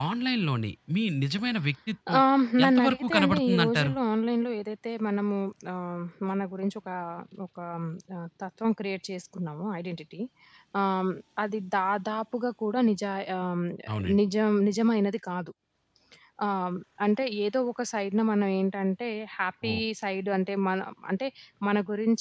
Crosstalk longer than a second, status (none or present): present